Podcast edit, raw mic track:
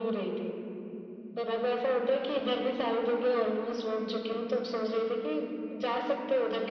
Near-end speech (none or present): none